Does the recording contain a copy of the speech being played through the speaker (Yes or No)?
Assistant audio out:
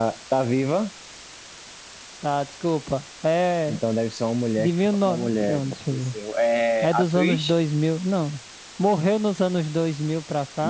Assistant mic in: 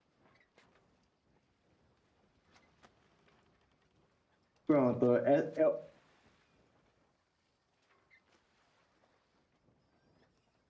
No